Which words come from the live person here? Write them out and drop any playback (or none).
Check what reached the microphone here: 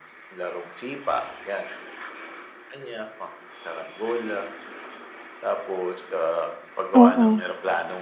Oo.